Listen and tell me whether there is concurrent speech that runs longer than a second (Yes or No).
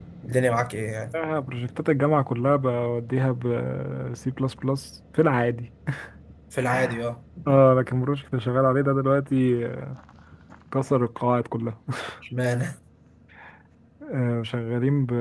No